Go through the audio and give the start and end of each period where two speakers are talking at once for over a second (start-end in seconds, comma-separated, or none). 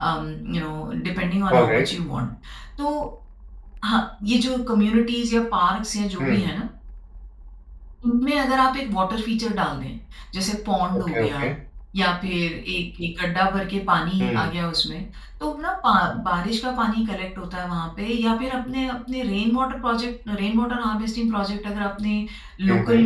none